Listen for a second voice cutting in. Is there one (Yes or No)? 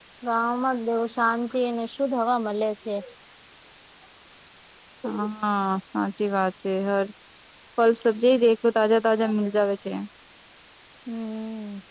No